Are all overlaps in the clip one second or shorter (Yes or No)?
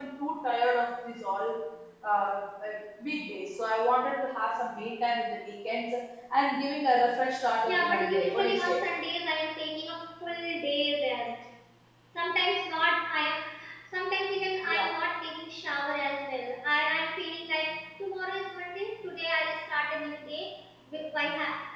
No